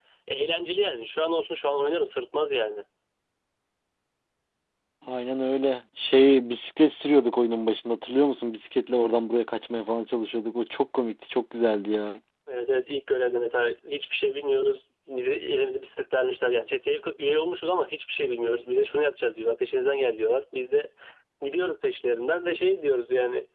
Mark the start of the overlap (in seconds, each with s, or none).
none